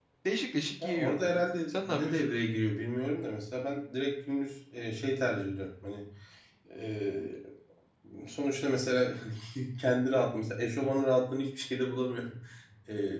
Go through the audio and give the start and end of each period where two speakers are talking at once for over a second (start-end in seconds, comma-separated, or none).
0.8-2.3